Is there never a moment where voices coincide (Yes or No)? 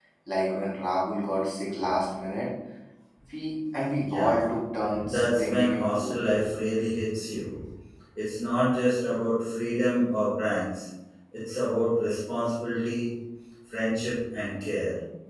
No